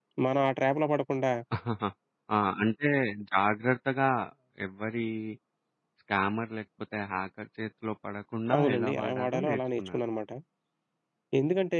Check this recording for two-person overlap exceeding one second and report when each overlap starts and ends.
8.6-10.0

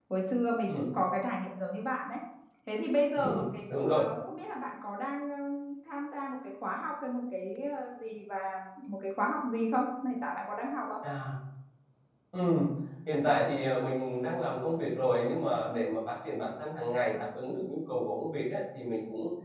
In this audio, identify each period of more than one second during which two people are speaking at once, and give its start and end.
none

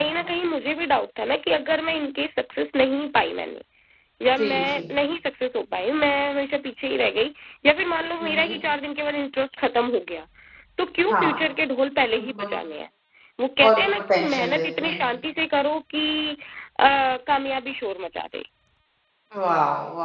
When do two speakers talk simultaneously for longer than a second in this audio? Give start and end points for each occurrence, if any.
13.7-15.0

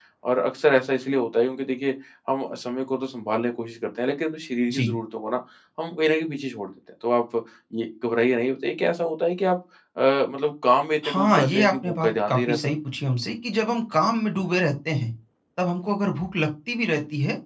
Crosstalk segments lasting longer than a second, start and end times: 11.1-12.7

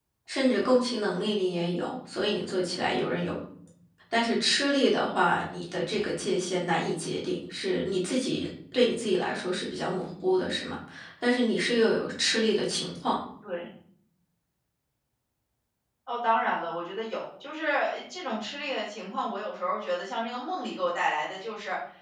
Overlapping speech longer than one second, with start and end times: none

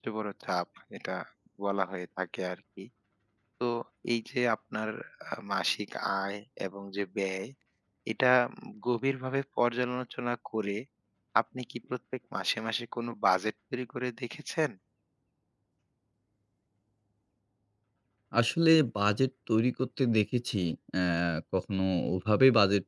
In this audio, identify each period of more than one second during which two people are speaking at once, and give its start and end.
none

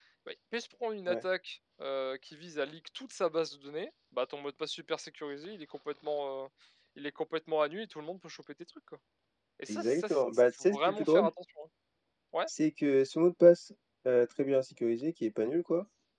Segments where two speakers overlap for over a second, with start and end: 9.7-11.3

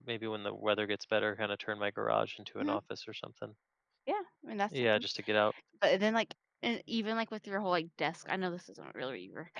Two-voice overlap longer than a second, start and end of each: none

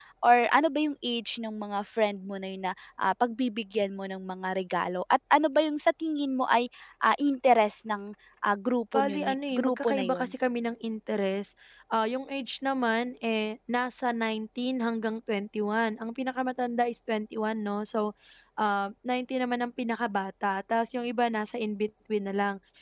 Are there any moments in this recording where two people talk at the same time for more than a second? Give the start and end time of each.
8.9-10.3

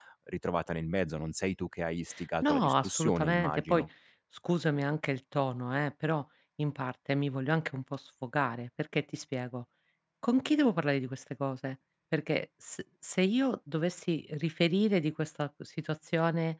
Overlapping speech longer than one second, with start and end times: 2.4-3.9

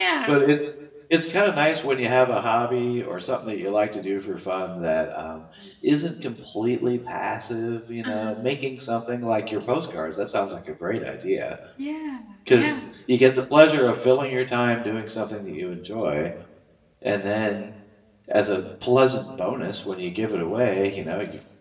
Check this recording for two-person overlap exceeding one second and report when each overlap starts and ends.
none

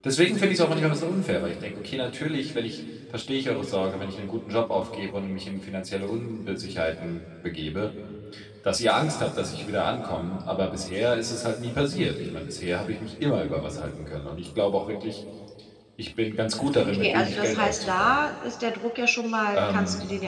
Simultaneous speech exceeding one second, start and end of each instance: 16.8-18.2

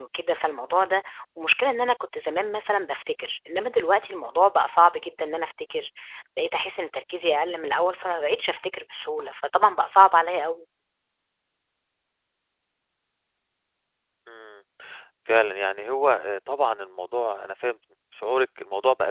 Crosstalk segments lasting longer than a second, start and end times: none

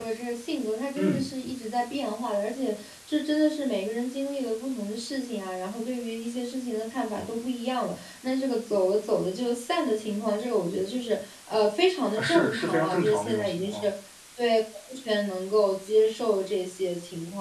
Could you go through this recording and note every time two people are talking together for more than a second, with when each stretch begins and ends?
12.2-13.8

